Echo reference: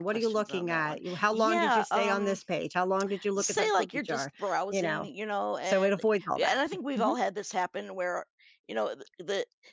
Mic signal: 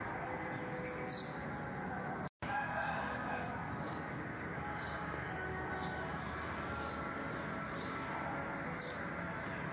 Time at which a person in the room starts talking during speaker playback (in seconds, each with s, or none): none